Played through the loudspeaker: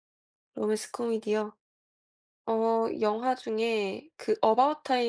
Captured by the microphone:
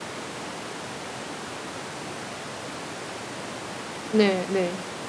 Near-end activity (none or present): present